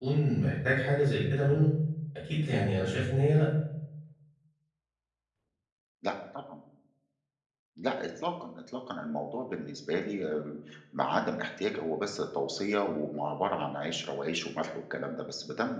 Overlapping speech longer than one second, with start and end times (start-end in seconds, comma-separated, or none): none